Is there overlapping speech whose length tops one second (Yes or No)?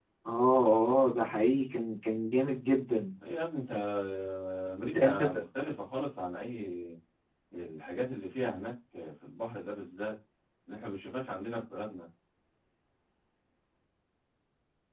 No